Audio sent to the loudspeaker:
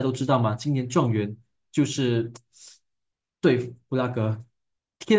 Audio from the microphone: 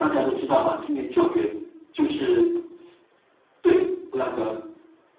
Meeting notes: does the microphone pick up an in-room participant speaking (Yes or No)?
No